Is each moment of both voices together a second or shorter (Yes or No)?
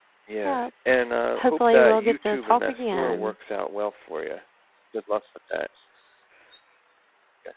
No